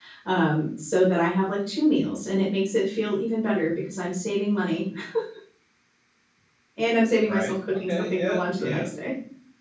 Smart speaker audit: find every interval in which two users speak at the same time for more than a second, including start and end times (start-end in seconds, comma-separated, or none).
7.3-8.9